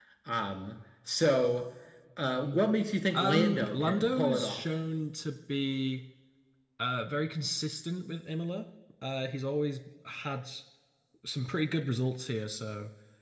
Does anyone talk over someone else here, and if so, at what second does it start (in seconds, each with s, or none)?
3.1 s